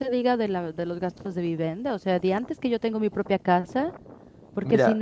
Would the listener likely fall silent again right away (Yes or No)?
Yes